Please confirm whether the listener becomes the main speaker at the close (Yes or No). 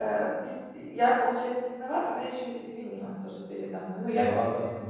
Yes